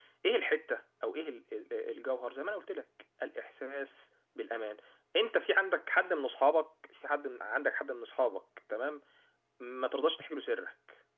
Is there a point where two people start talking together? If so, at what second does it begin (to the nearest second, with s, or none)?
none